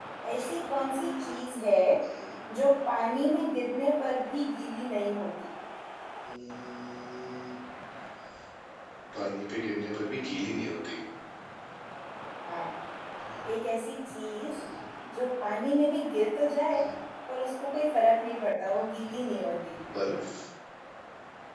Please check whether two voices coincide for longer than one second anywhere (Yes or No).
No